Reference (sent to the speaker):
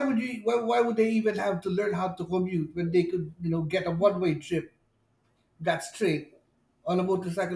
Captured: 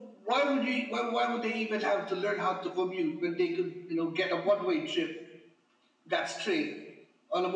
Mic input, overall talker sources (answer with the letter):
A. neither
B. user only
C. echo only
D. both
C